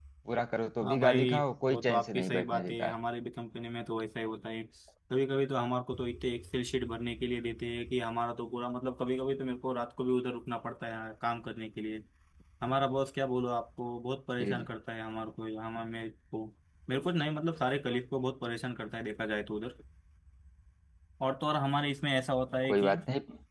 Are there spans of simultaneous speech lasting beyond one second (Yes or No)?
Yes